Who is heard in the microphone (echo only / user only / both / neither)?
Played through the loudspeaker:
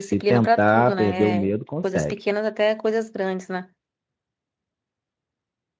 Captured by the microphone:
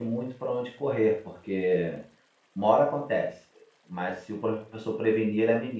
user only